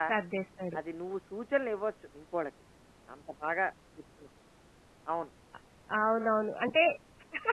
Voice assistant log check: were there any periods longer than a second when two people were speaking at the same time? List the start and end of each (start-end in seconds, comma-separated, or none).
none